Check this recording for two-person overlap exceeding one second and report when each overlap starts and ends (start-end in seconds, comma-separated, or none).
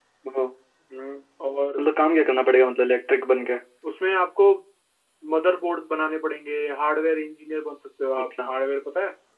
none